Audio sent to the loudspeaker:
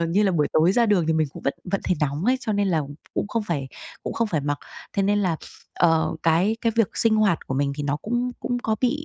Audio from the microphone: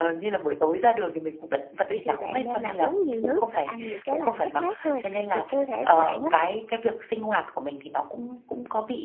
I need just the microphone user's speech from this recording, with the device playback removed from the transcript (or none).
Vậy thì bạn nên là uống nhiều nước và ăn những cái là mát mát thôi thì cơ thể của bạn á,